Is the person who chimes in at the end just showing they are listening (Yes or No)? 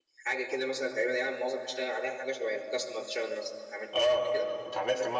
No